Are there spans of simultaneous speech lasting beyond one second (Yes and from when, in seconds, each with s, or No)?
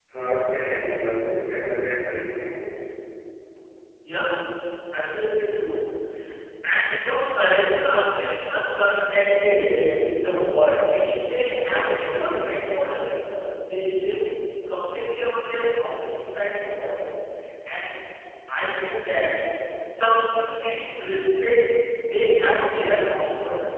No